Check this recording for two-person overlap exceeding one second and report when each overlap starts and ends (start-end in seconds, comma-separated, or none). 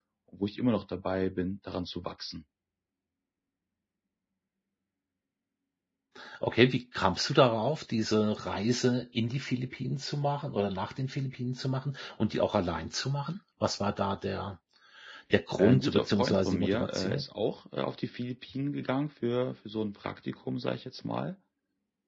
15.6-17.2